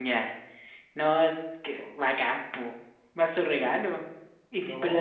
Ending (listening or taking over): listening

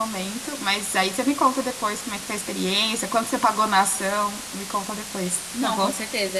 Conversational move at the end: taking over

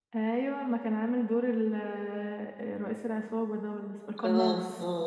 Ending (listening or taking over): taking over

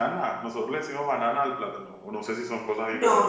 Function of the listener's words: taking over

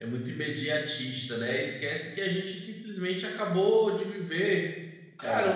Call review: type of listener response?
listening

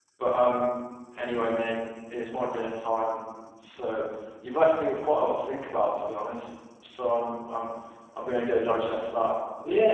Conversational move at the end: taking over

